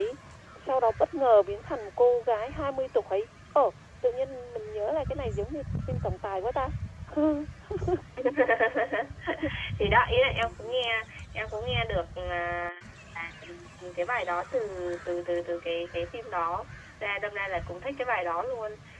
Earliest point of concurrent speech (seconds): none

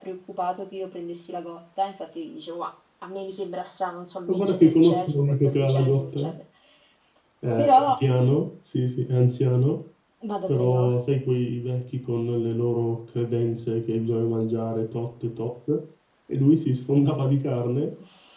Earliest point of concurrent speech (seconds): 4.3 s

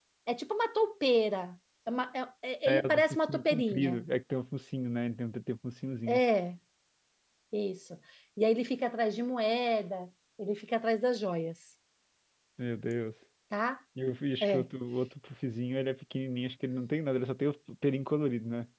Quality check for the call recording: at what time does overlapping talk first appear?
2.7 s

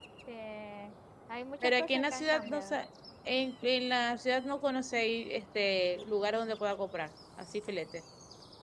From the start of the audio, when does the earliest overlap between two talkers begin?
1.6 s

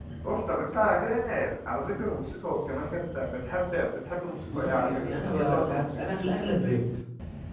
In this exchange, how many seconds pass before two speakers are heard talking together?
4.5 s

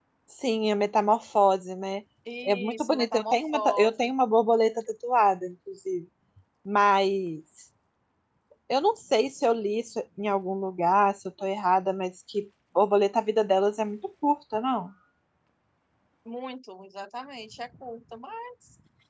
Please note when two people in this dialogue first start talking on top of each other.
2.5 s

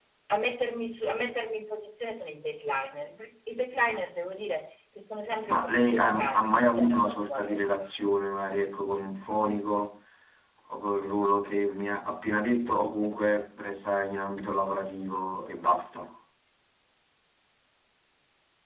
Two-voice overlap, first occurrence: 5.5 s

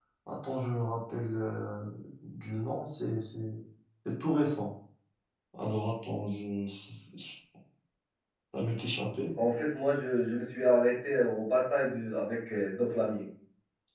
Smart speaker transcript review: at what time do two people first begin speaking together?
none

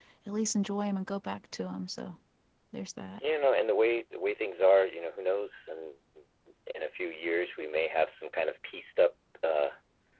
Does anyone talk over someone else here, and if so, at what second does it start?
none

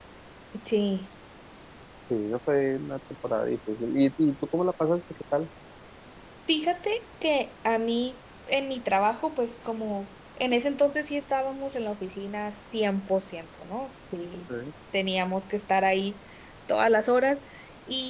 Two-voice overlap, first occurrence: none

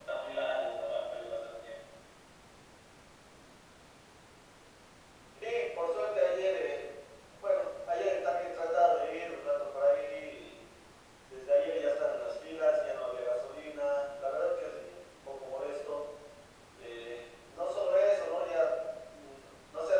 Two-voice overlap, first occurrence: none

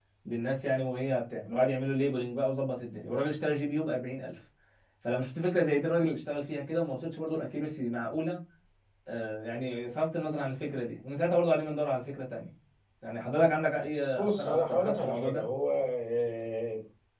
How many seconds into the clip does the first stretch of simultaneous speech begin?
14.2 s

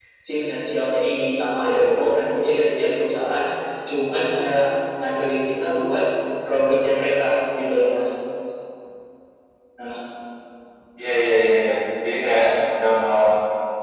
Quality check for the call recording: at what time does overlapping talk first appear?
none

